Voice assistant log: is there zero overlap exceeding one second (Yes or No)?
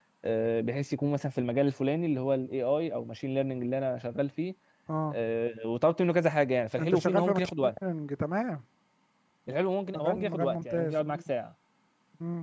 No